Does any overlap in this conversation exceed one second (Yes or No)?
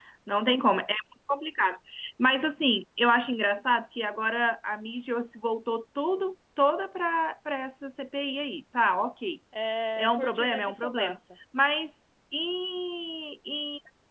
Yes